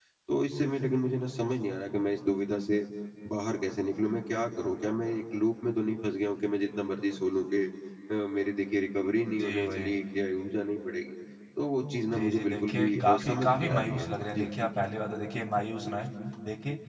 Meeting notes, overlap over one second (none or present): present